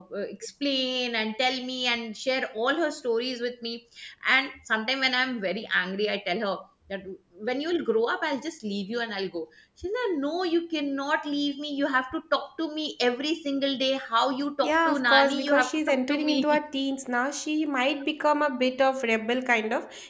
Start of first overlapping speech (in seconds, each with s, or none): 14.6 s